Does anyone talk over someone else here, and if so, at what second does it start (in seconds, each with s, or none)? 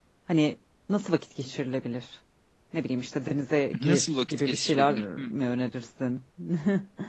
3.7 s